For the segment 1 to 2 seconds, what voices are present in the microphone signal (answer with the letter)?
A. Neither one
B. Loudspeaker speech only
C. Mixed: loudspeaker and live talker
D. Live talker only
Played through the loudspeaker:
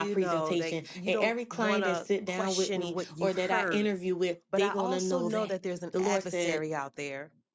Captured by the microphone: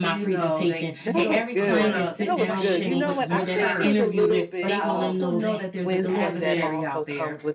C